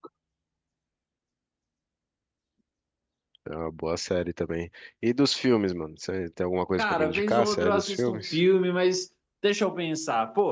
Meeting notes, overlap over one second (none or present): present